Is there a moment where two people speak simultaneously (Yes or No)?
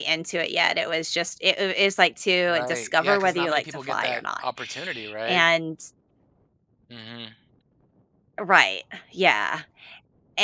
Yes